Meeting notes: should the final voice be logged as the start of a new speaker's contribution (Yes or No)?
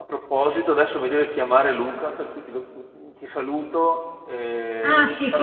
Yes